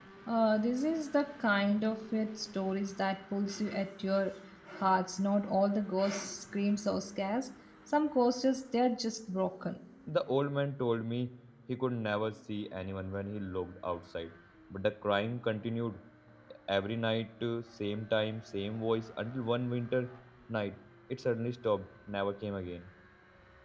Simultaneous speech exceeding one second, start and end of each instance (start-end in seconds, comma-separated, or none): none